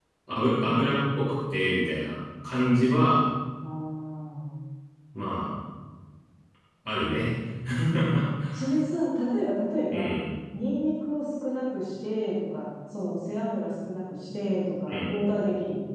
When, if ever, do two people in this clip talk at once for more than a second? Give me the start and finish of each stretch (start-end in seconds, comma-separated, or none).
none